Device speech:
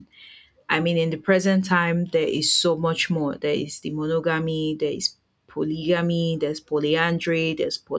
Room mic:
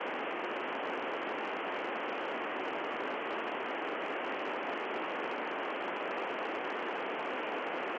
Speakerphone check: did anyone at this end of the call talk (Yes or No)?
No